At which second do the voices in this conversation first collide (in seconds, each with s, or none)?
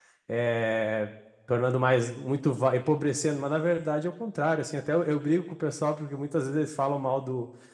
none